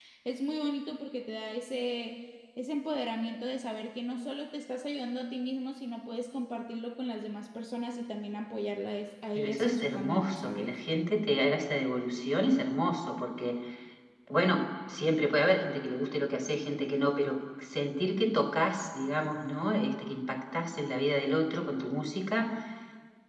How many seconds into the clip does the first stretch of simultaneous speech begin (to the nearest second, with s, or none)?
9 s